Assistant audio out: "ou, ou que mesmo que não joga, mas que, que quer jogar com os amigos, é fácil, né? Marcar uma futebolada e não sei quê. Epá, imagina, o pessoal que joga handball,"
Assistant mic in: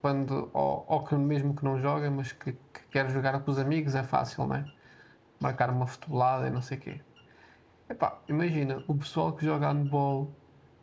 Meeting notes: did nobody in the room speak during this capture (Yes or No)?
Yes